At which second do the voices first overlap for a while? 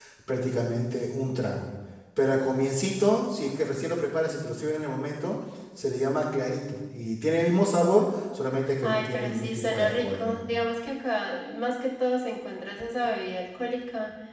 8.8 s

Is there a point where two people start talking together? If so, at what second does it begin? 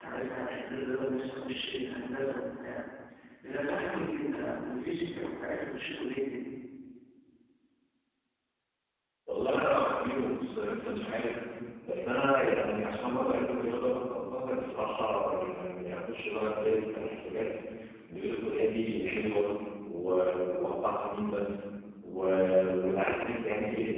none

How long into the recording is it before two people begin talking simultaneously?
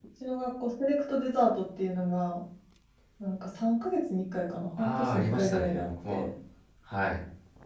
4.8 s

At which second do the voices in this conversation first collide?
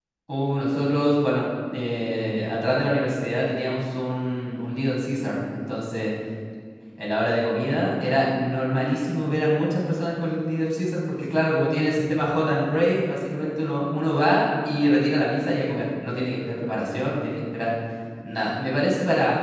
none

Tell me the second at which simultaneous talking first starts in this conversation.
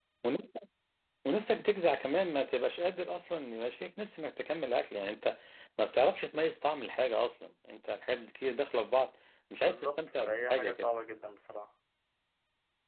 9.6 s

